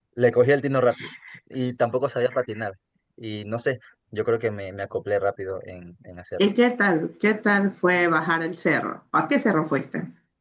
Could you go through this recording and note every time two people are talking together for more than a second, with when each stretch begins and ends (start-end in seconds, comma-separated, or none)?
none